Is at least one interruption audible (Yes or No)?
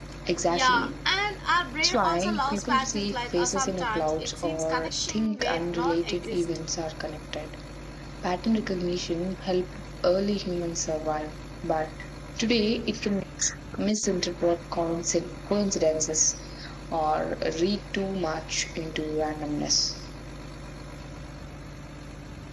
Yes